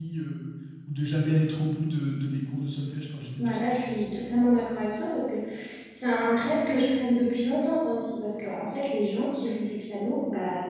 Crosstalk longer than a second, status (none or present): none